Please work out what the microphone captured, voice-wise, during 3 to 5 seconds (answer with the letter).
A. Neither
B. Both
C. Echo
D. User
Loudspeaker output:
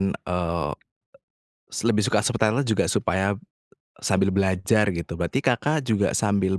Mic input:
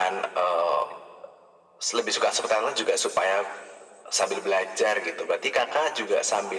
C